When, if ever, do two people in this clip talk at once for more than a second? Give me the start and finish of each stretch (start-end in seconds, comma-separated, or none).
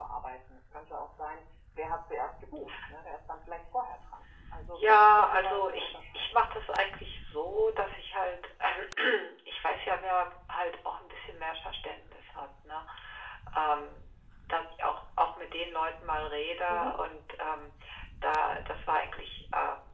4.8-6.4